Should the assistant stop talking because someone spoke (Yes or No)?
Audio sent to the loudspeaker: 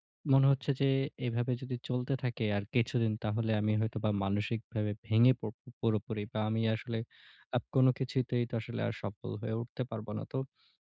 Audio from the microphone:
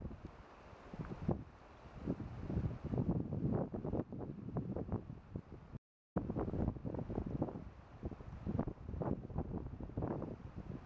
No